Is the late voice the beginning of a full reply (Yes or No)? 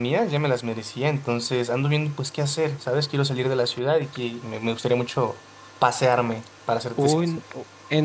Yes